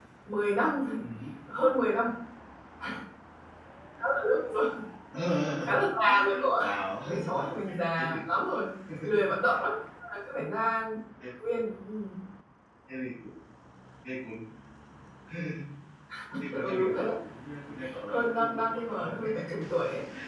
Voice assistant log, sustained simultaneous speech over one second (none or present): present